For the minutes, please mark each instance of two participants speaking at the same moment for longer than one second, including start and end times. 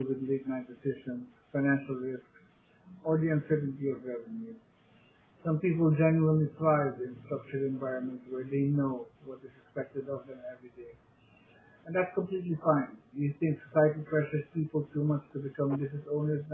none

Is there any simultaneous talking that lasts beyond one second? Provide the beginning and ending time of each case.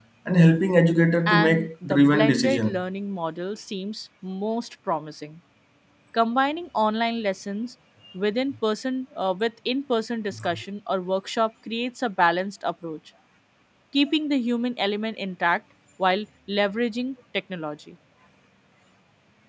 1.3-2.8

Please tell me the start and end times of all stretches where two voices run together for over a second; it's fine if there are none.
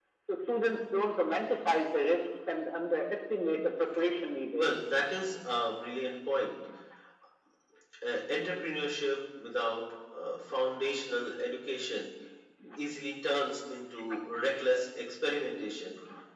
none

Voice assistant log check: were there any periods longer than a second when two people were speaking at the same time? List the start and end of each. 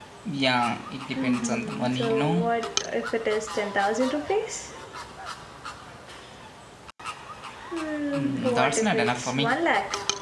1.1-2.4, 8.1-9.5

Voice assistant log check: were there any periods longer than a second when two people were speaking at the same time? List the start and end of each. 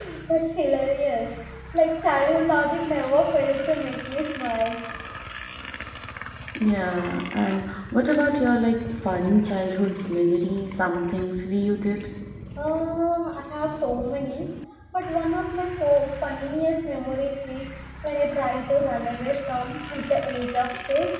none

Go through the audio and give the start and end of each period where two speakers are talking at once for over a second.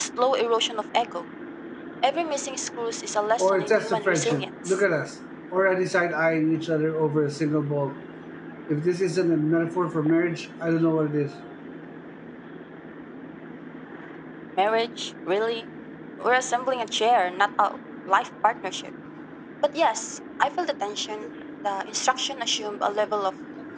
3.4-4.8

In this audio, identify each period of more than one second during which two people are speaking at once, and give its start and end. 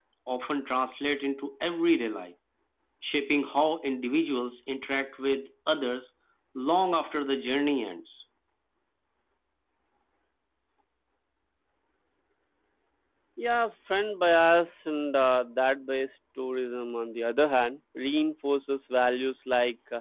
none

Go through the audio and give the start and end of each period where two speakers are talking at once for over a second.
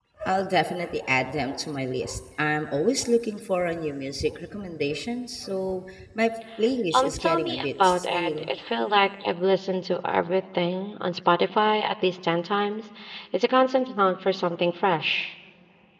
7.0-8.5

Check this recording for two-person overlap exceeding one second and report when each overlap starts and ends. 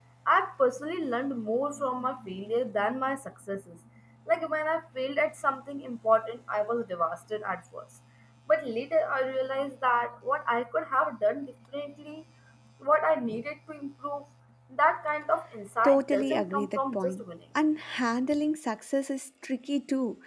15.8-17.2

